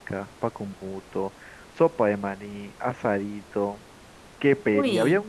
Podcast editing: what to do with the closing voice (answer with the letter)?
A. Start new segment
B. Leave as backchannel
B